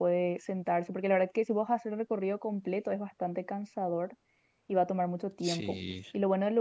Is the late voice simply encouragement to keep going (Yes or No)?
Yes